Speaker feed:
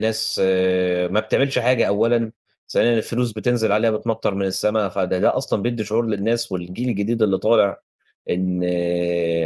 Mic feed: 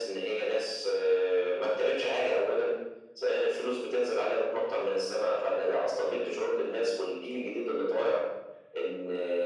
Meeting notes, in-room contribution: none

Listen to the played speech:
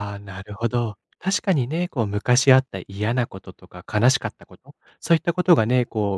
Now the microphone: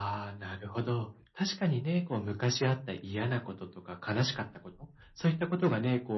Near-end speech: none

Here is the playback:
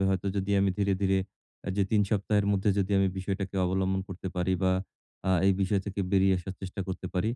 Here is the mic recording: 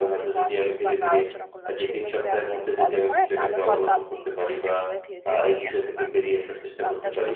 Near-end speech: present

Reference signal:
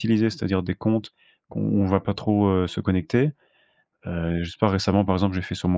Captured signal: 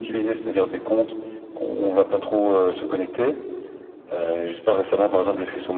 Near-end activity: none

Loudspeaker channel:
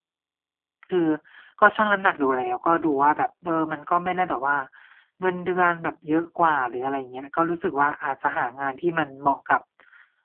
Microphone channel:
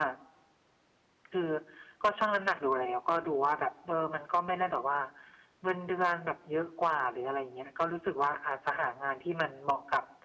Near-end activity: none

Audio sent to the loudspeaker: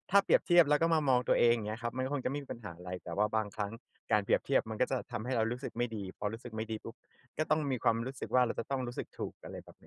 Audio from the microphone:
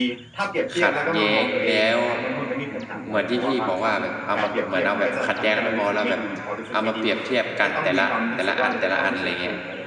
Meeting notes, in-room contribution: present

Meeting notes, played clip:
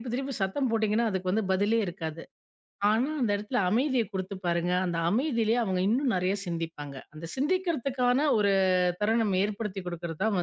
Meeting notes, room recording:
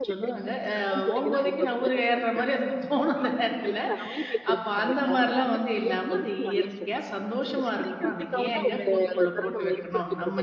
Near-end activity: present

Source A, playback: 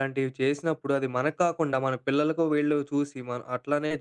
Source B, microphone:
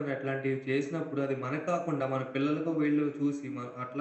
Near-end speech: none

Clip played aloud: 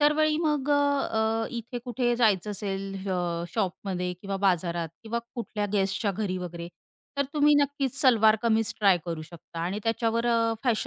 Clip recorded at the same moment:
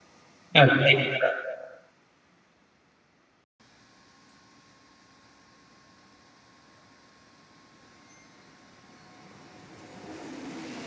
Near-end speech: present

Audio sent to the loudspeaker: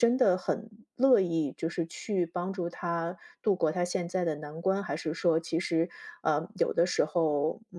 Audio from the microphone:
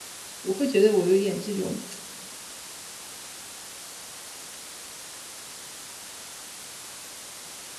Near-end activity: present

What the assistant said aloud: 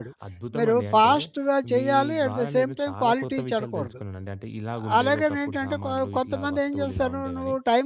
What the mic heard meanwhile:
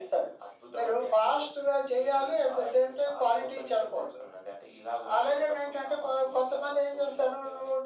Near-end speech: none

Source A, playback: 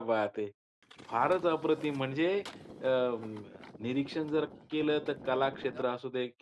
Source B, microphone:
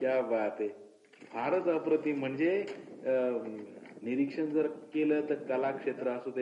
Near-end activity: none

